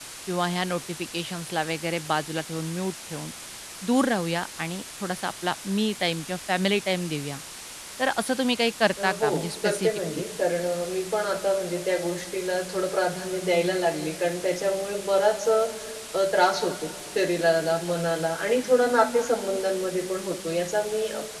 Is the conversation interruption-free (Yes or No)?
No